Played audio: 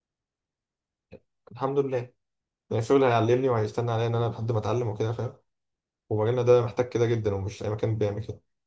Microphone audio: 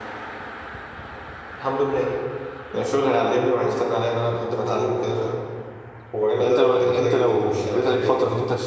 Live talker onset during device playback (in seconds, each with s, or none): 6.4 s